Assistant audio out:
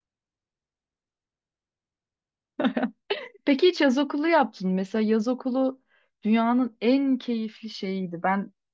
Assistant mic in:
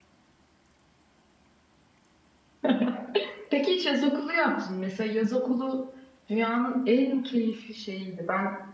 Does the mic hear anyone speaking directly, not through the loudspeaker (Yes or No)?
No